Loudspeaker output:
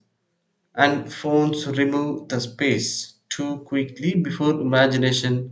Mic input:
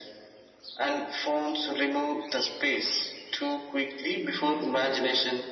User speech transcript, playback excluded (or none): none